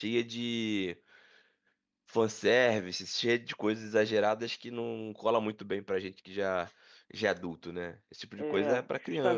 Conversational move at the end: taking over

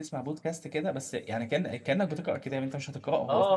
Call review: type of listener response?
taking over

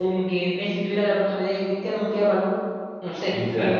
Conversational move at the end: taking over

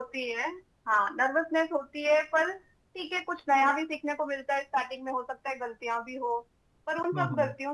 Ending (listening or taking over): listening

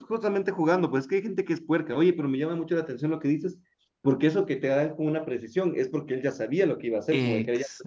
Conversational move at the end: listening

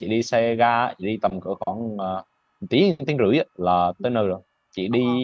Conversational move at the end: listening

